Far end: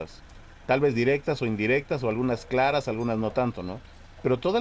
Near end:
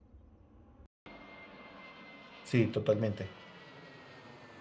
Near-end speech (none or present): present